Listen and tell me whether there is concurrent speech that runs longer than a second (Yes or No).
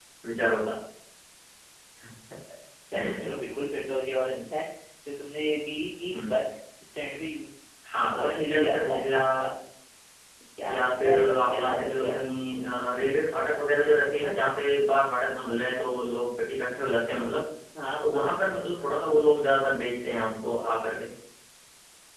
Yes